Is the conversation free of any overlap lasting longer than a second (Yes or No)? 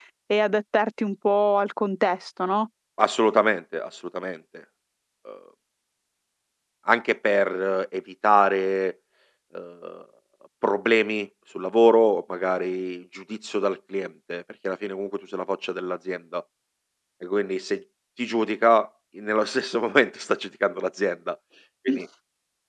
Yes